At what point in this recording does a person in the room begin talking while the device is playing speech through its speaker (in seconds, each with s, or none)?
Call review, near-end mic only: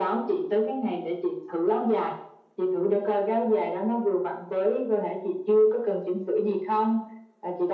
none